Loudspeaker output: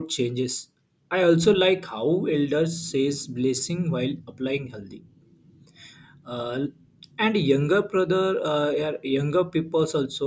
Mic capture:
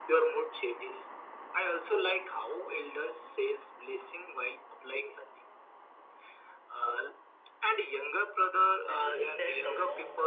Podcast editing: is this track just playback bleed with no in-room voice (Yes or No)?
No